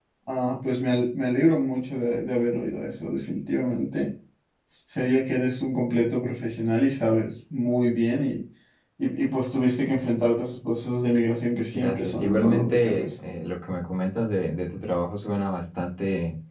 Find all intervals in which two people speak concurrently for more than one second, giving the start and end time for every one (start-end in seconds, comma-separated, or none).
11.7-13.2